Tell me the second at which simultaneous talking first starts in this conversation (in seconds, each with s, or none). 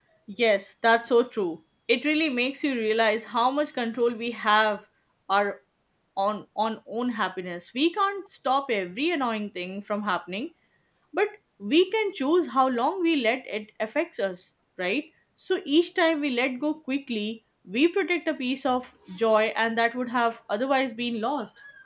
none